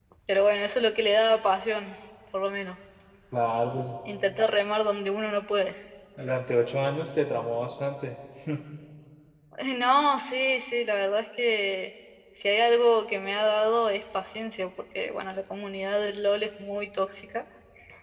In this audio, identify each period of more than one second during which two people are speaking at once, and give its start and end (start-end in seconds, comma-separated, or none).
none